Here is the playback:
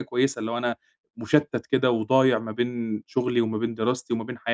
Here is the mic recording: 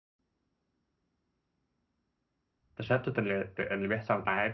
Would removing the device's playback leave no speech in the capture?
No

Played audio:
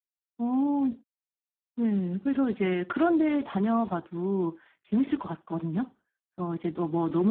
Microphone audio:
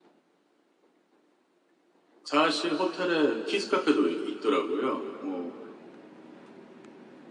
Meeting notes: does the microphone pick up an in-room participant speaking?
Yes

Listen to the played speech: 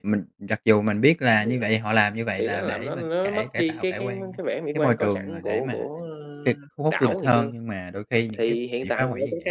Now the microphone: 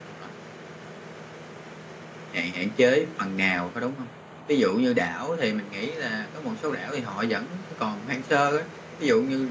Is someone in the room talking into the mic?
Yes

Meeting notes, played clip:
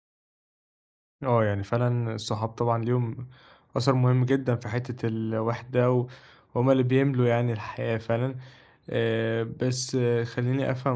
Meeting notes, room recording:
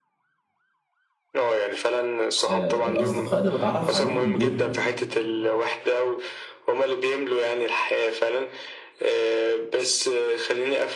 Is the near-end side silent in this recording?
No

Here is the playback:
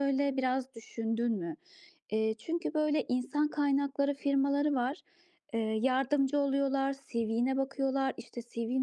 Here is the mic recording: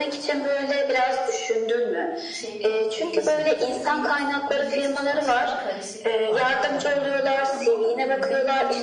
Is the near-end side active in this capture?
Yes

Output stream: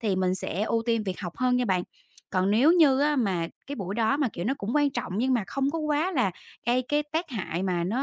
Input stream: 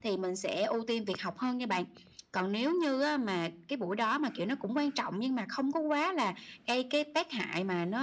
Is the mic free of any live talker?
Yes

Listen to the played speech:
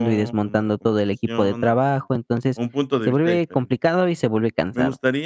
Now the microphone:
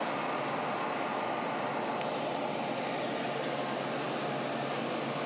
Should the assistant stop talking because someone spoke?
No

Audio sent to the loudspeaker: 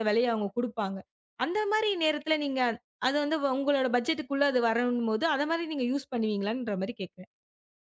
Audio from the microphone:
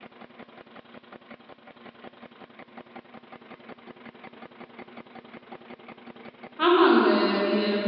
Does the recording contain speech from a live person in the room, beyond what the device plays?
Yes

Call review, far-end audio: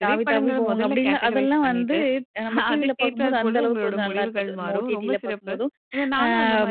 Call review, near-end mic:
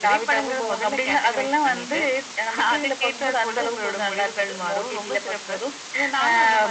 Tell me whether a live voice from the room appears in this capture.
No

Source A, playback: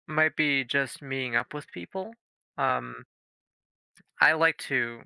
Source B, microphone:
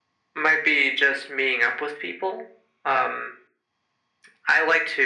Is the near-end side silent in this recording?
Yes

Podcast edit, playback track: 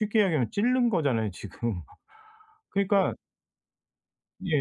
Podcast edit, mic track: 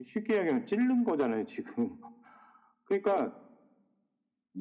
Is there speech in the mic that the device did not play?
No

